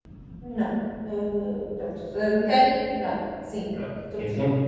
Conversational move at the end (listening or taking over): taking over